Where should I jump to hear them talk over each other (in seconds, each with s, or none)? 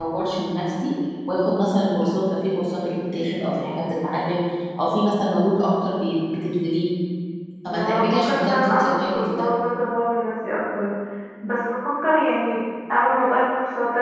7.7 s